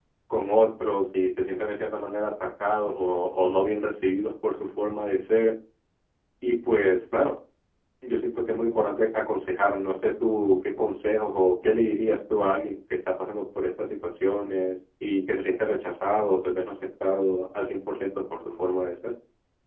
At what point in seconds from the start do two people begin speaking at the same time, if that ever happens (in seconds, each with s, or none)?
none